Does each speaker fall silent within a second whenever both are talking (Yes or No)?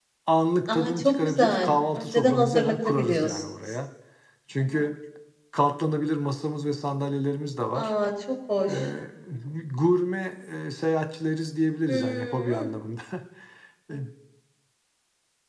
No